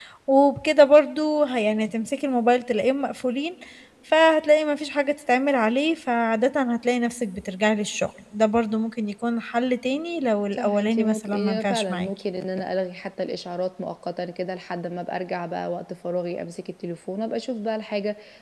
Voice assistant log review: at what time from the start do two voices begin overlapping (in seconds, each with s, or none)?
10.5 s